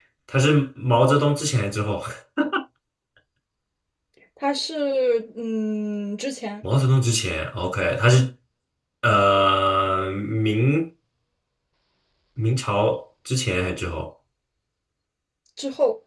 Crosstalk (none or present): none